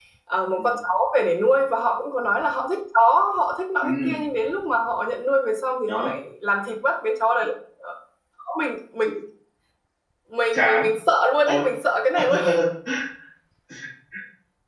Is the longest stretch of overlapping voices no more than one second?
Yes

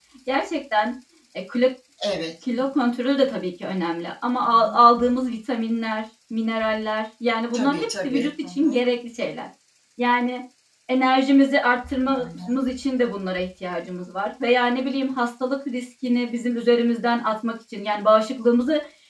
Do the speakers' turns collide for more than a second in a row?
Yes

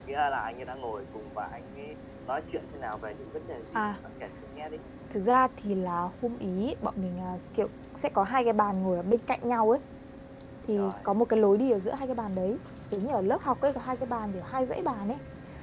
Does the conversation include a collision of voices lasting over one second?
No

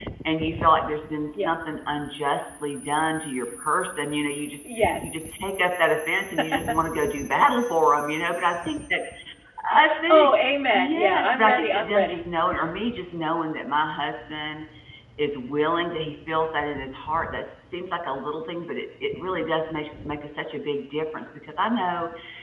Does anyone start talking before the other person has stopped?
Yes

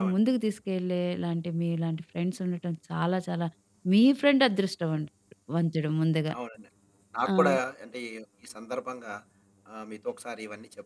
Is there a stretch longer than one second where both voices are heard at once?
No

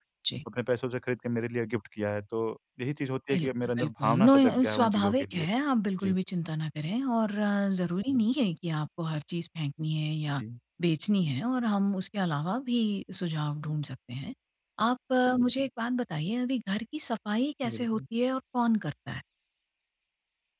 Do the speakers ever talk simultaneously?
Yes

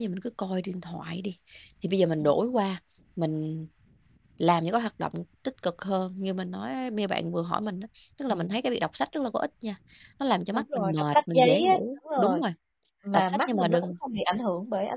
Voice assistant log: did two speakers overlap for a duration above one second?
Yes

